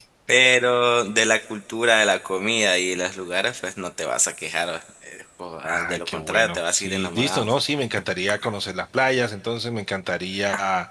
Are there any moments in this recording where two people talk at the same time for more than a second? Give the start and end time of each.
5.6-7.5

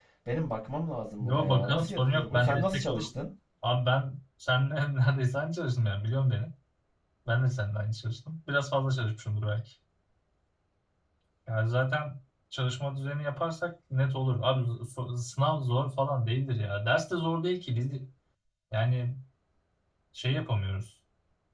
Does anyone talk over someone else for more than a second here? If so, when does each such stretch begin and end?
1.2-3.1

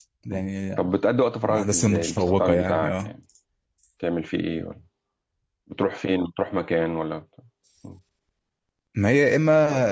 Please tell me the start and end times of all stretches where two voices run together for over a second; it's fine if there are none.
1.5-3.1

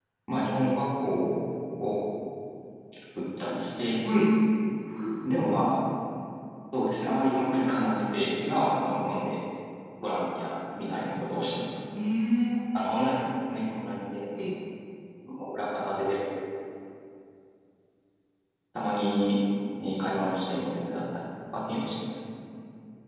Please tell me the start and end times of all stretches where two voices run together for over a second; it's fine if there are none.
none

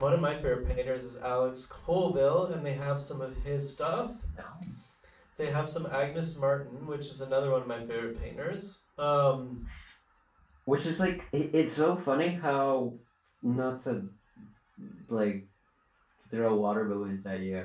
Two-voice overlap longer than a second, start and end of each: none

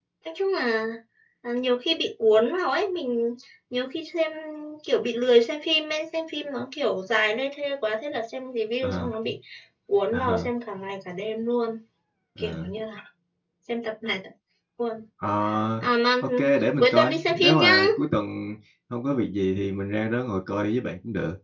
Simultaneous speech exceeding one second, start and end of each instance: 16.2-17.9

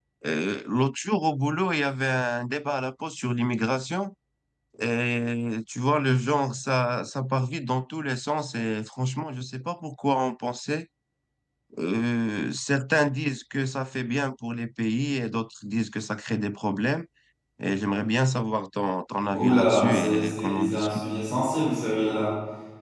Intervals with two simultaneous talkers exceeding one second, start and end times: 19.3-21.0

